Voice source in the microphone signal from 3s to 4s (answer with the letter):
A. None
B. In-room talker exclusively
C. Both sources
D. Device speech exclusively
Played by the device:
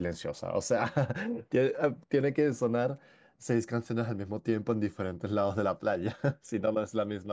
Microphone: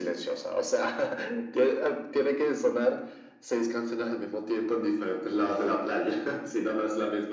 D